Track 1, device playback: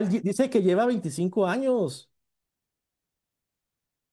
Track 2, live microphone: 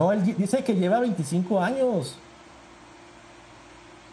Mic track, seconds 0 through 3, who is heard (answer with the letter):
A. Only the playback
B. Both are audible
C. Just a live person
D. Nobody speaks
A